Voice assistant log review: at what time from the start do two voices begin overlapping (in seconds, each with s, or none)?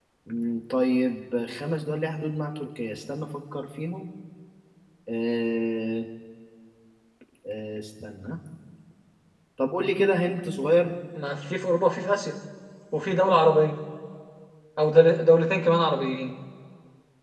none